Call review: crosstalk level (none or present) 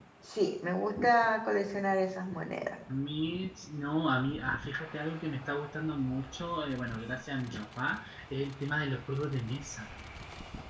none